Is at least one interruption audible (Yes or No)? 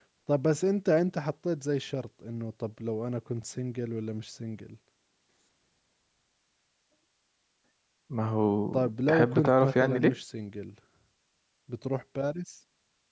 Yes